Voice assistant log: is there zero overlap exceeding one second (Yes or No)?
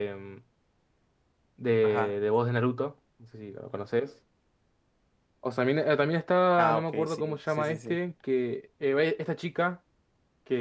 No